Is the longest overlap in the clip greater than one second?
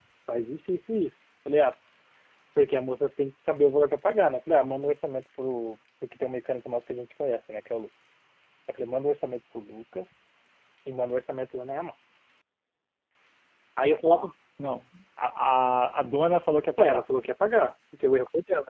No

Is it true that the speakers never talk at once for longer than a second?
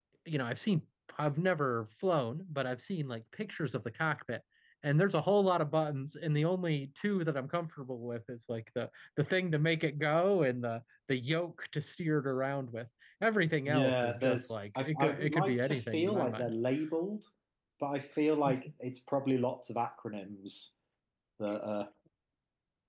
No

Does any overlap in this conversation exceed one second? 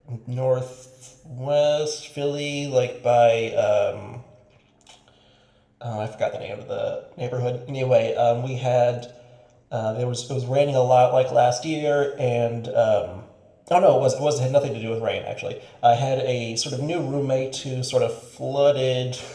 No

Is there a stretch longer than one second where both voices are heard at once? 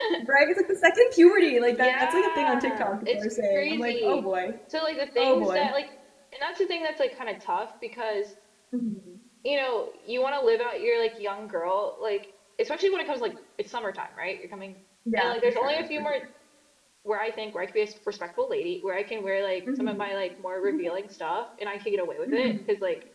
Yes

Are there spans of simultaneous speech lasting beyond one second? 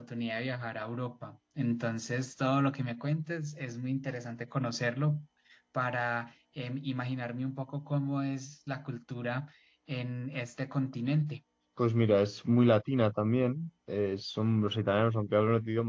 No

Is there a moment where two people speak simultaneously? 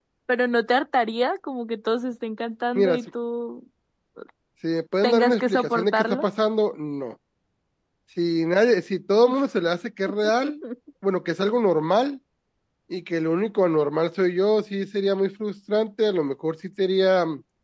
Yes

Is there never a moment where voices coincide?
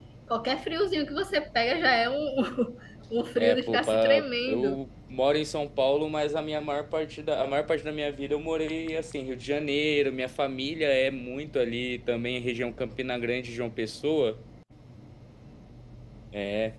No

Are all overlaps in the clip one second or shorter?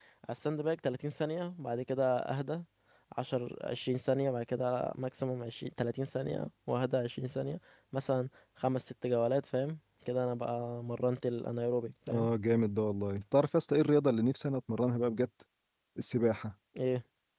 Yes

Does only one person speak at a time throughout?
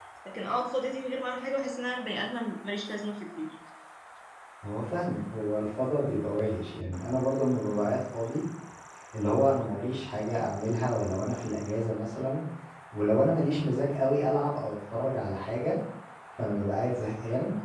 Yes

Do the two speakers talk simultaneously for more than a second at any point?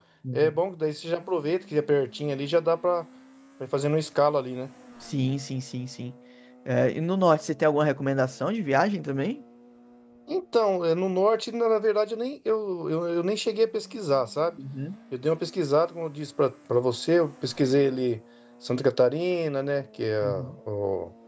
No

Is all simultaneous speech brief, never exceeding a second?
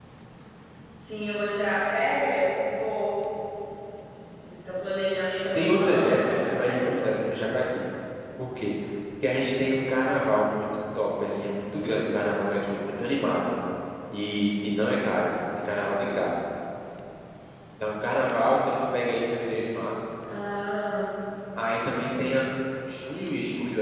No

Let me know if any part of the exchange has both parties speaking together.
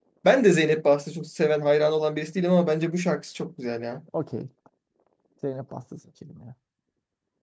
No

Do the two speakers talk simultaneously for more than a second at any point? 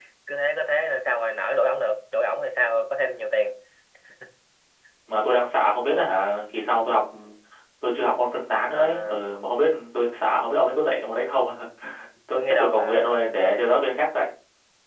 Yes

